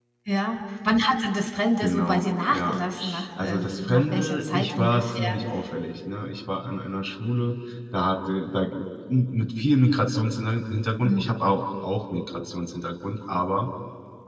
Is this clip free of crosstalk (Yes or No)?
No